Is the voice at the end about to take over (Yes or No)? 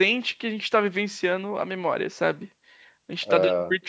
No